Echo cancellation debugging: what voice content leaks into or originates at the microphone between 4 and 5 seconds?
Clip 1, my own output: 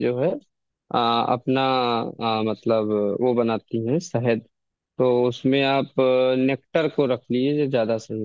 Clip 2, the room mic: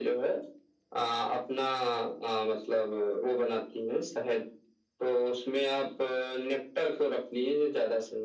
echo only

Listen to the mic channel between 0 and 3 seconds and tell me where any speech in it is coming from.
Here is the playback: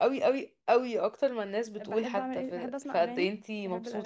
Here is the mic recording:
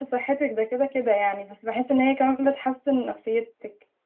user only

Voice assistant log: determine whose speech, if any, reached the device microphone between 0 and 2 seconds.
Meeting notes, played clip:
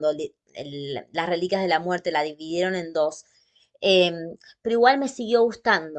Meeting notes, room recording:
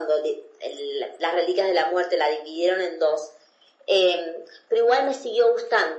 echo only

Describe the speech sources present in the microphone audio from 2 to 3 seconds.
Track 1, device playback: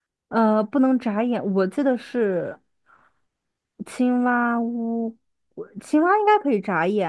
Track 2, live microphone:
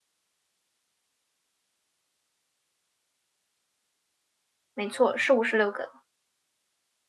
neither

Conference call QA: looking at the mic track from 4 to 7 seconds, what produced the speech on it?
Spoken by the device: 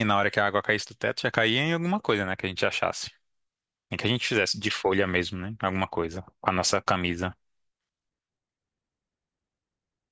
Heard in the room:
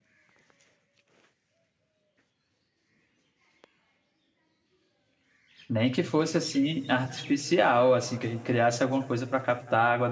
user only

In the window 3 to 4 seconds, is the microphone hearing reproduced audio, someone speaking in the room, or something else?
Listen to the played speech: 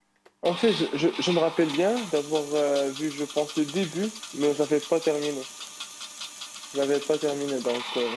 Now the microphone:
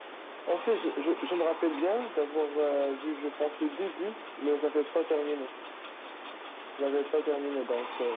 echo only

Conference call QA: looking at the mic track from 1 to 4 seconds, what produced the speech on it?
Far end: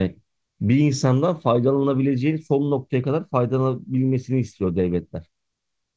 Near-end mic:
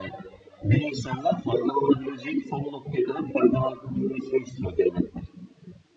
echo only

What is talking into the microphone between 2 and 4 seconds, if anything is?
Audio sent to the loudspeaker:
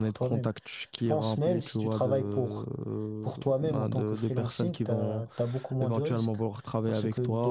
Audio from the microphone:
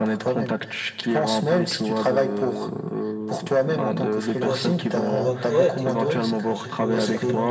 echo only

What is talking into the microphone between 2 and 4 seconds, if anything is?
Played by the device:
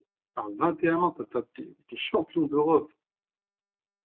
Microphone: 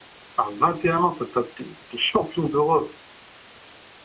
echo only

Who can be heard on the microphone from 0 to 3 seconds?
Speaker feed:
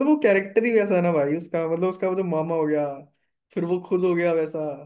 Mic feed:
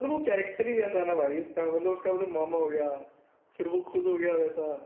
echo only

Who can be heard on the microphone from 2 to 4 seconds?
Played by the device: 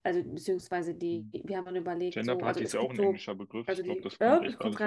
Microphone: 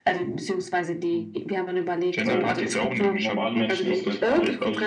both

